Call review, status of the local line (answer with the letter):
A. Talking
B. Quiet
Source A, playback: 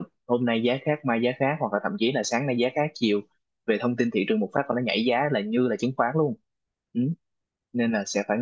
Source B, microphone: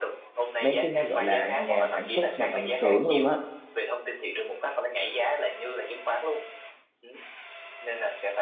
A